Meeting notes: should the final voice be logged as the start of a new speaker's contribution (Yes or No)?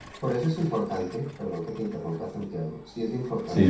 No